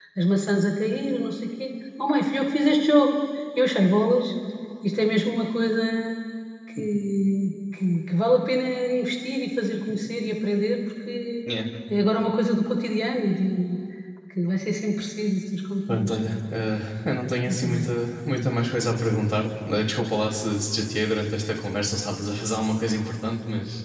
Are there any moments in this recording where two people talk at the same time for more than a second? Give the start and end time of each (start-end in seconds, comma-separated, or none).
none